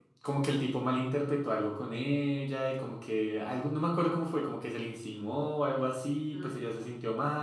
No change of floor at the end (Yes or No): Yes